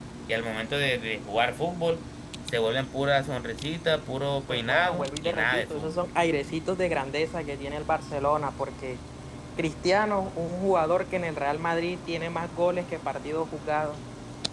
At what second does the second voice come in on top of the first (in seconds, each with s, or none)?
4.5 s